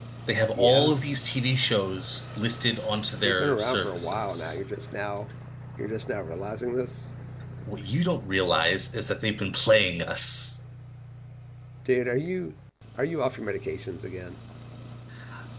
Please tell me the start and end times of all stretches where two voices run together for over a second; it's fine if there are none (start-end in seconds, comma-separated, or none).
3.2-4.6